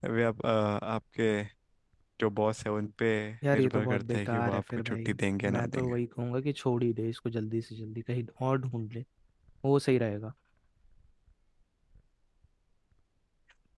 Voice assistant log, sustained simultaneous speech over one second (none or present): present